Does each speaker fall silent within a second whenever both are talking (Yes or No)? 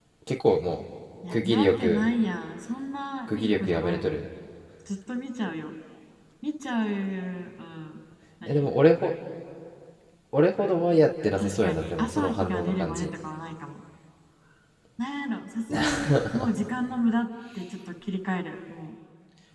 No